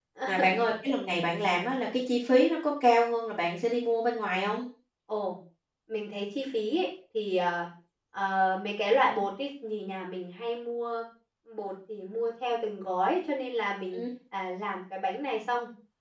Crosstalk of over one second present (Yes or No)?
No